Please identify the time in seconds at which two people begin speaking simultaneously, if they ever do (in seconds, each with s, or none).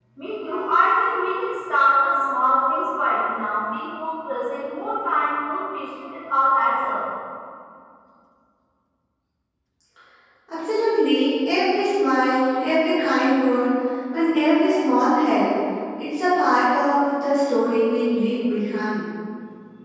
none